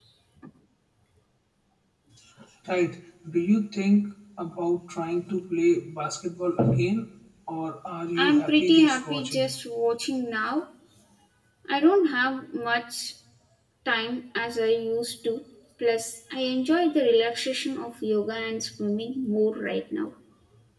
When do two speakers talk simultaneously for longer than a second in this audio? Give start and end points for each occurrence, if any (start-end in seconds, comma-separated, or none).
8.2-9.5